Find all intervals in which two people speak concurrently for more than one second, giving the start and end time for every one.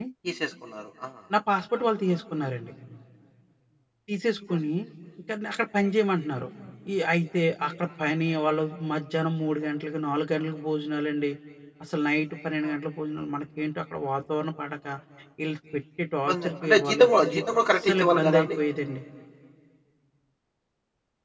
16.3-18.6

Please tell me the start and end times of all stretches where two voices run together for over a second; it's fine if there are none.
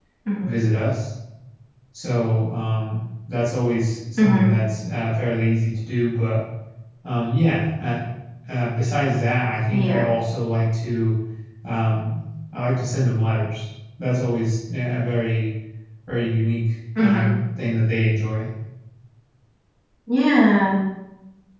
none

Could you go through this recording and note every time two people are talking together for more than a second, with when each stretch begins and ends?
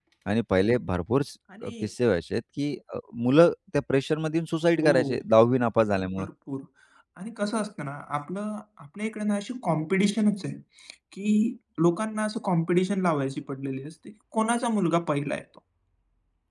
none

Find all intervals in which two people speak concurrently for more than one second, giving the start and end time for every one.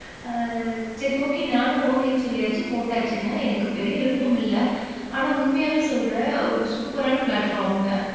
none

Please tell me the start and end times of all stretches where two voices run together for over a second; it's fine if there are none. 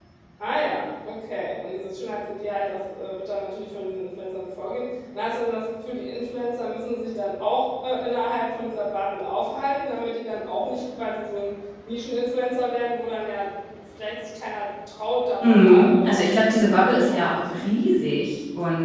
15.4-17.6

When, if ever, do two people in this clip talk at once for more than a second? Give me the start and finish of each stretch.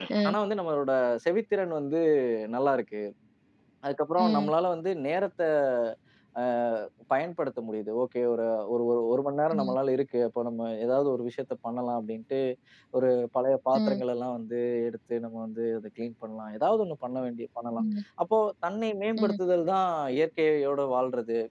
none

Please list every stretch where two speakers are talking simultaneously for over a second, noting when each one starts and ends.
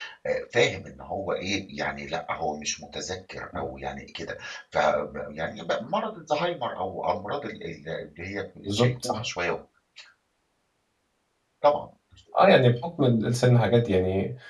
none

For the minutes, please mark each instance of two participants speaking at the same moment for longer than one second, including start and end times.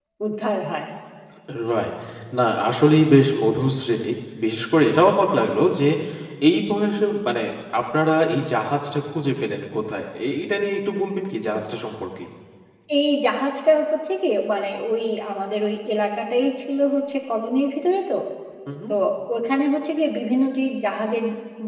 none

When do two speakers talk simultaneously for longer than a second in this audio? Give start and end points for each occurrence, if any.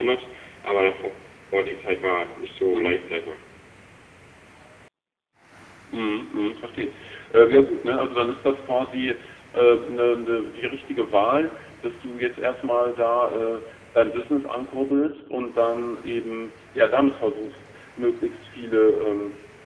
none

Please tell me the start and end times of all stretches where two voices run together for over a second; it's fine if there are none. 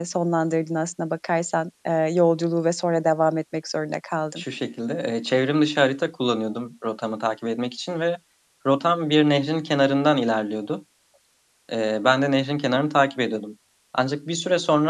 none

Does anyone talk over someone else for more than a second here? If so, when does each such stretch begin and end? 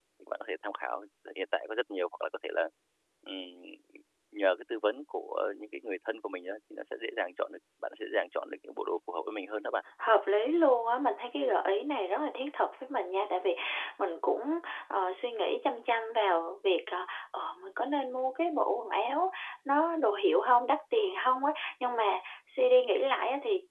none

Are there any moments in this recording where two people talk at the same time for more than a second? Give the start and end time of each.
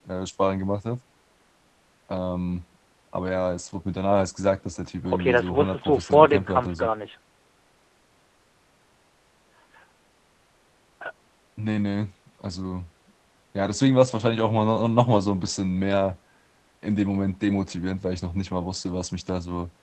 5.1-6.9

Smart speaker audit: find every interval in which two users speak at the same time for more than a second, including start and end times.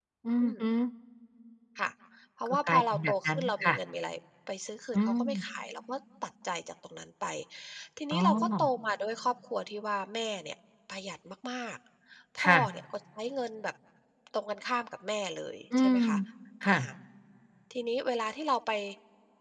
2.5-3.8

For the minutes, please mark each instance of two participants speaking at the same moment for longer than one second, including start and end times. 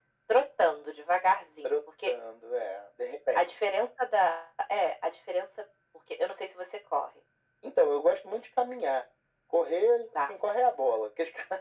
none

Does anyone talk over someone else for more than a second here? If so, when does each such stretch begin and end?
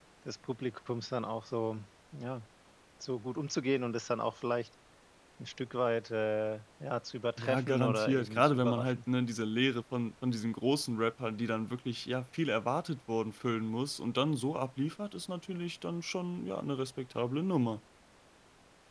7.4-9.0

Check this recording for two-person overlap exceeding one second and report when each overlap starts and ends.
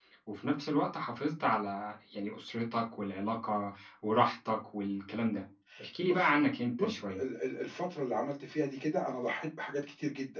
none

